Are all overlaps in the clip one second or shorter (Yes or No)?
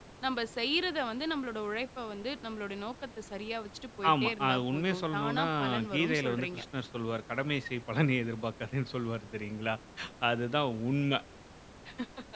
No